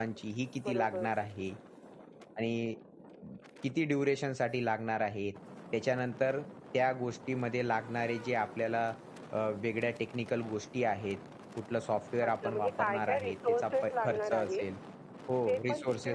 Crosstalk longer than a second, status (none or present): present